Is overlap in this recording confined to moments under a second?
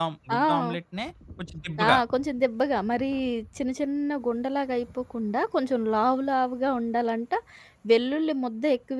Yes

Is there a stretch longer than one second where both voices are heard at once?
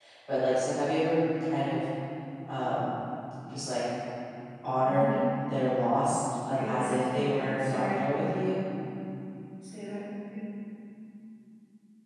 Yes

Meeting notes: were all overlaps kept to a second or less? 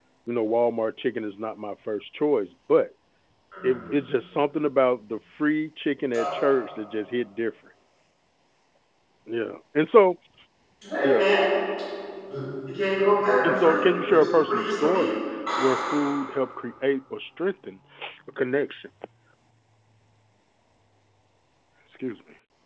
No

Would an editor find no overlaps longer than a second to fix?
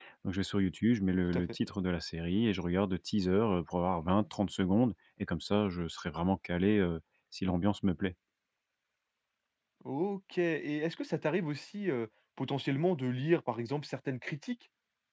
Yes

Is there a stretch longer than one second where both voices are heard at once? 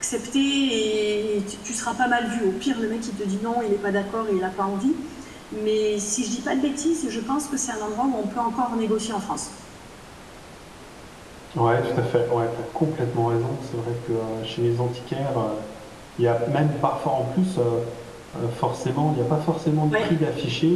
No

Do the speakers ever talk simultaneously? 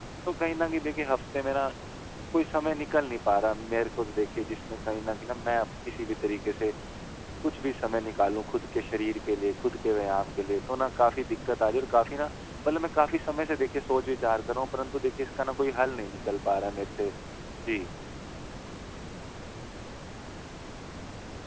No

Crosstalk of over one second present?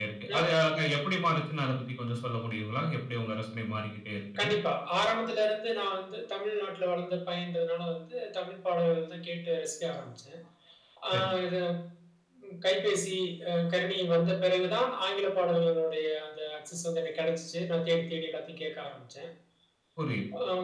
No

